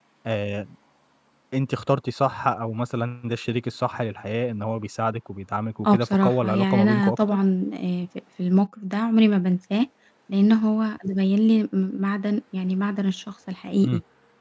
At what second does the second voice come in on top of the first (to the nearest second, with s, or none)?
6 s